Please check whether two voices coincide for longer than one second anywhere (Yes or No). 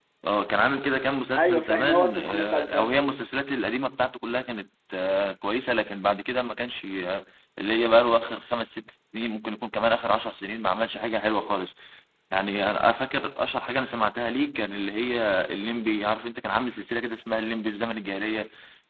Yes